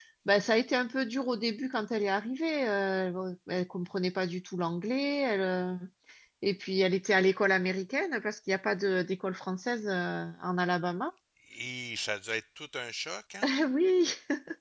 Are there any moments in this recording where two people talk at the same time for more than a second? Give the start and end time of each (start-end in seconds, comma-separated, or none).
none